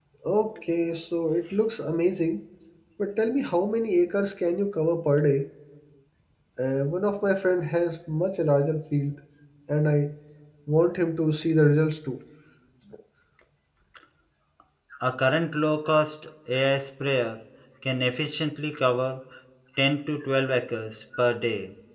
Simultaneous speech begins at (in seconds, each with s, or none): none